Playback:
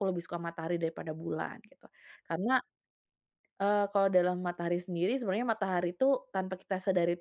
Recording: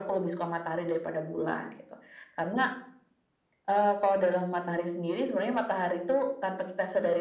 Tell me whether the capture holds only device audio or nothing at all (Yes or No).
Yes